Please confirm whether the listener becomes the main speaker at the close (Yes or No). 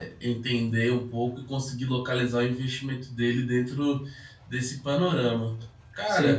Yes